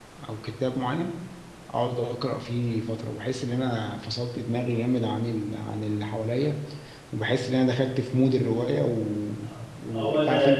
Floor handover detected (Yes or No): No